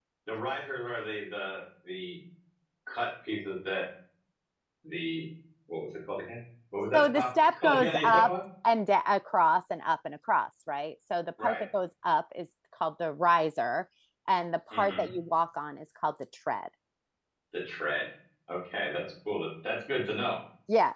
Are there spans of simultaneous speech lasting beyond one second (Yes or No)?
Yes